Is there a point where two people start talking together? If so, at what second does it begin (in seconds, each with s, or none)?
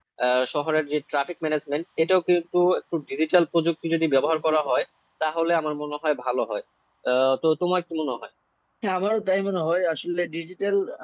none